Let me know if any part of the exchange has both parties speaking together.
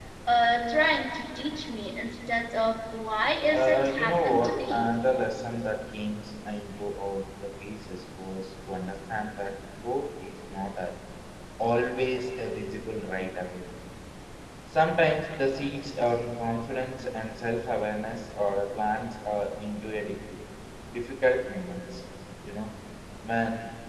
Yes, from 3.5 s

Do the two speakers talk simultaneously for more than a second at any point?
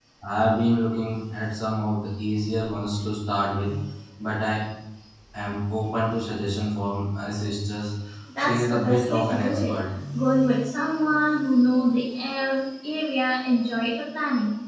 Yes, from 8.4 s

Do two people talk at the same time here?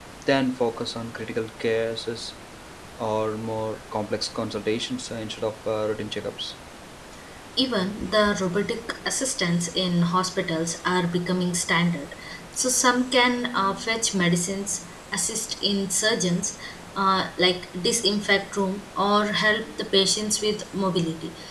No

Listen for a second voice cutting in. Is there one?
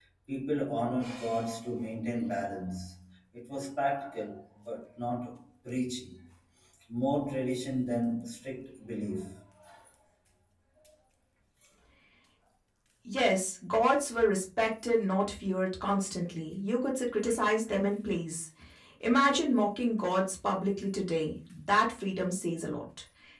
No

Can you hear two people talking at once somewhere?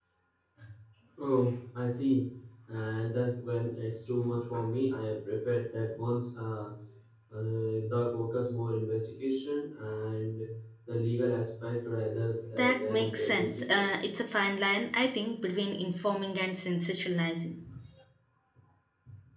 Yes, from 12.5 s

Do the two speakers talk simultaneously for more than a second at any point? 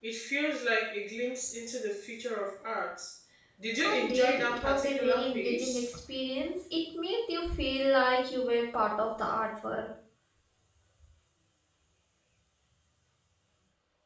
Yes, from 3.8 s

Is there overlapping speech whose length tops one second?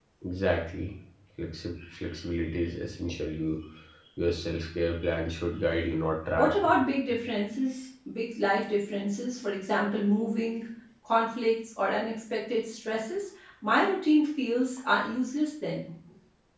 No

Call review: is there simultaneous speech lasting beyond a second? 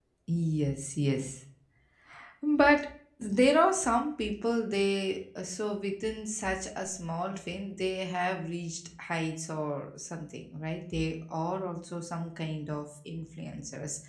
No

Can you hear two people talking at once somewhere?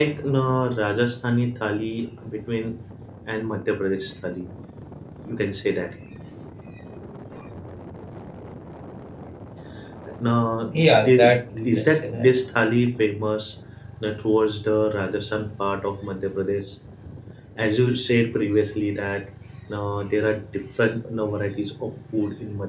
Yes, from 10.7 s

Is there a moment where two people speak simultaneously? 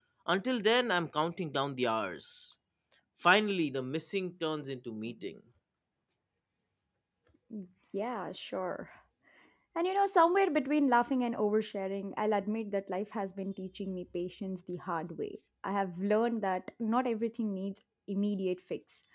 No

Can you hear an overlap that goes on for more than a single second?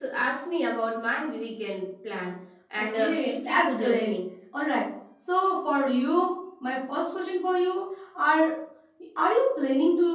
Yes, from 2.8 s

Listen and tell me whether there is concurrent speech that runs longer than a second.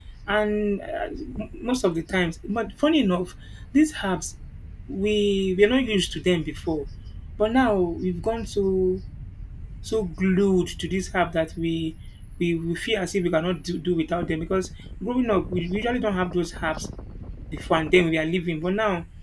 No

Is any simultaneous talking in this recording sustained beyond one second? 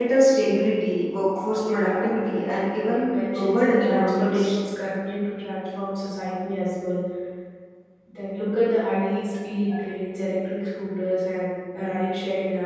Yes, from 1.6 s

